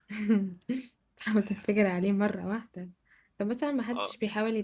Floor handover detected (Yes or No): No